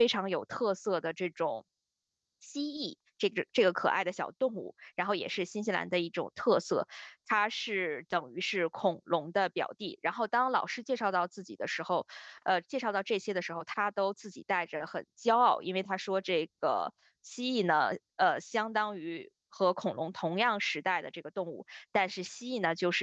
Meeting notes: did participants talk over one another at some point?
No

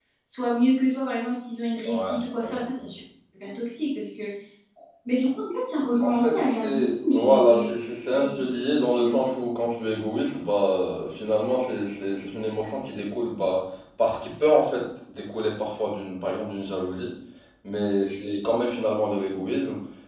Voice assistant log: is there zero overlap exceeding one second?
No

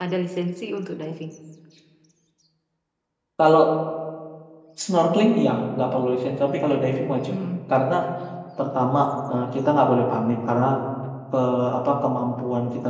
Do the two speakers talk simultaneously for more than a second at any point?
No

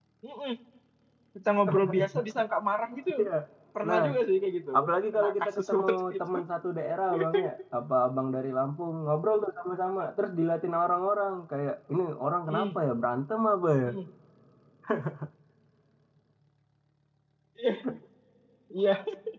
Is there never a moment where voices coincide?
No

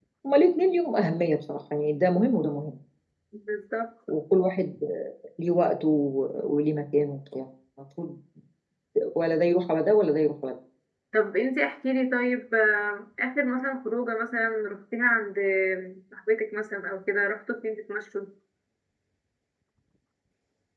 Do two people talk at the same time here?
No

